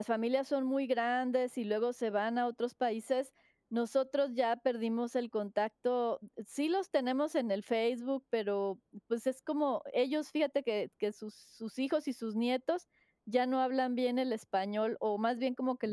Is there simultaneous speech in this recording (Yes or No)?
No